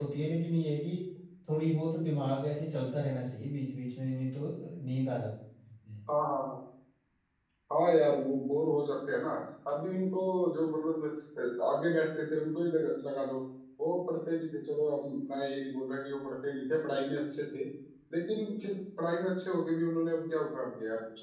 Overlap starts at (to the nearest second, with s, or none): none